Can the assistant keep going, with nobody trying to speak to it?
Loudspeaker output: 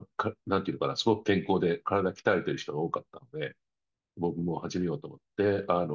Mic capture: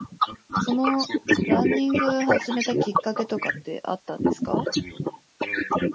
No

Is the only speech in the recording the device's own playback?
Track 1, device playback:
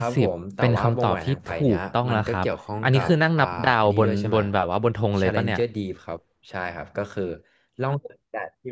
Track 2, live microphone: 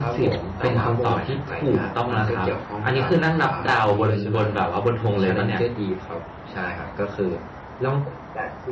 Yes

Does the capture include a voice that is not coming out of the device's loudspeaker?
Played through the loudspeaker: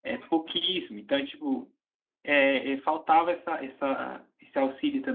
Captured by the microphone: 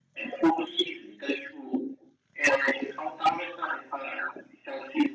No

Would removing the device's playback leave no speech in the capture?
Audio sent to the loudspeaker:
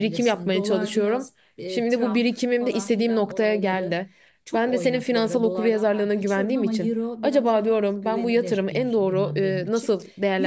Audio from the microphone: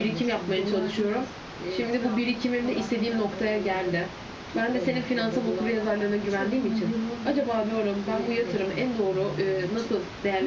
Yes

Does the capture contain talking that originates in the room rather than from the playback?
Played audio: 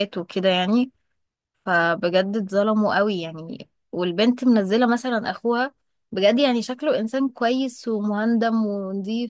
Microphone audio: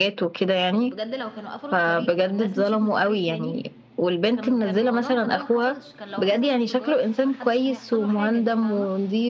Yes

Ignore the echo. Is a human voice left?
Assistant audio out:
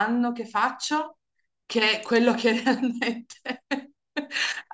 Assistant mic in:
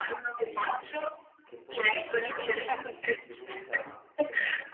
Yes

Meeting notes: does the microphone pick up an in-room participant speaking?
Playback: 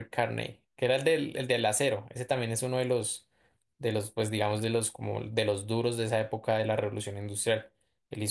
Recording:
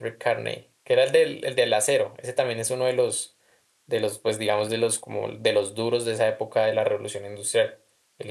No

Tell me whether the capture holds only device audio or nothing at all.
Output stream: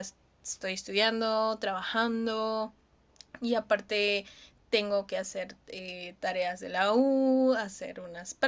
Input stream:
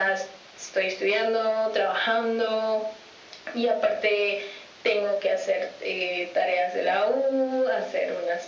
Yes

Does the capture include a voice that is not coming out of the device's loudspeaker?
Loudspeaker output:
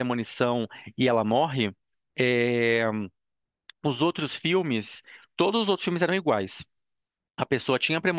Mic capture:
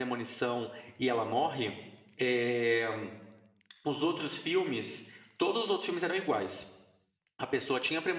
No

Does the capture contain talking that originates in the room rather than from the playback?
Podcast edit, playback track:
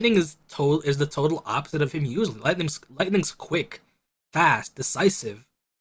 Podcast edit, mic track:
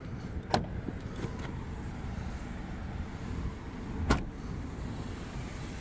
No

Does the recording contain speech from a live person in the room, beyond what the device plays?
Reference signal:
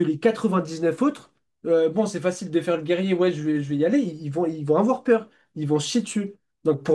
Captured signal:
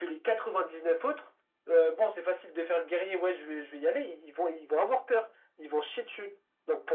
No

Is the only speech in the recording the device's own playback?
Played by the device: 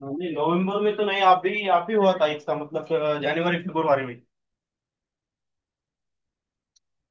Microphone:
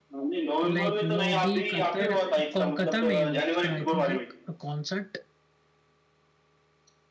No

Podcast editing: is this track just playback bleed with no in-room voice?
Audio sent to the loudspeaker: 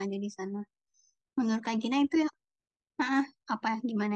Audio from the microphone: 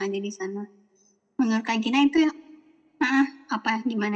Yes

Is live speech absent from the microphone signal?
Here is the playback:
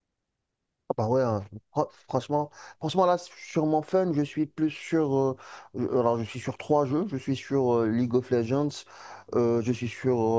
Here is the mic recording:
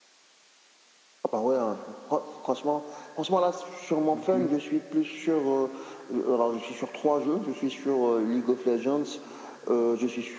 No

